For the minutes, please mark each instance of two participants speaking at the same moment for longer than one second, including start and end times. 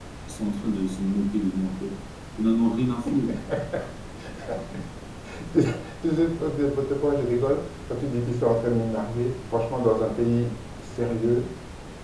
none

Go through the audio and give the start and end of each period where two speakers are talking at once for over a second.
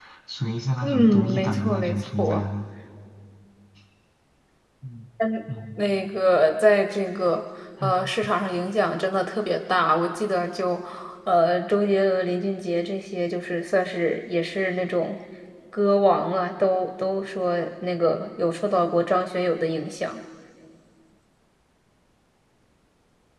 0.8-2.4

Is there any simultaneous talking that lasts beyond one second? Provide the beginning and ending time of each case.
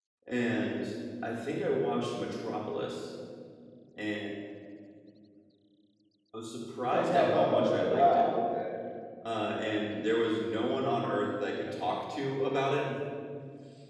6.9-8.3

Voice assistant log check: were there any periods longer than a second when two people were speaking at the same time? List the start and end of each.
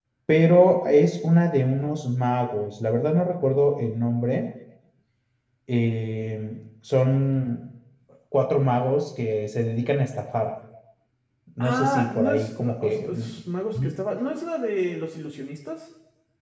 11.6-13.3

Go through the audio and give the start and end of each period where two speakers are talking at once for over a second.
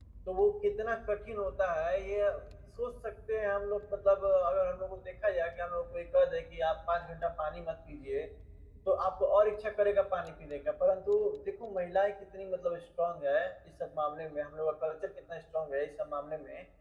none

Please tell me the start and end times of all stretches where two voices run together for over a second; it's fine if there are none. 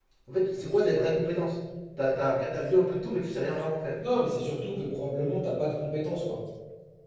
none

